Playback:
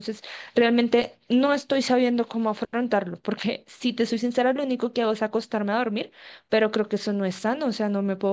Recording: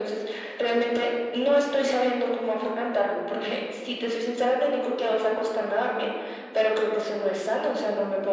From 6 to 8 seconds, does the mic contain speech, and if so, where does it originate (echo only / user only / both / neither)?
echo only